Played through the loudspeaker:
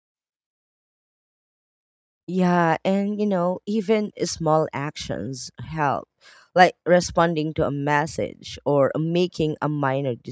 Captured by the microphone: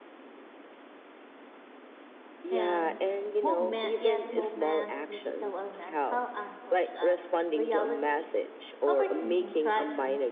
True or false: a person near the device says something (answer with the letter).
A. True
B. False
A